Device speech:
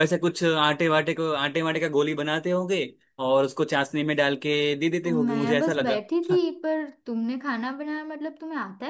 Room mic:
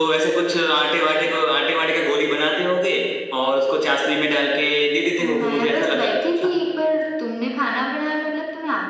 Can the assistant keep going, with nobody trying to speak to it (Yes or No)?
Yes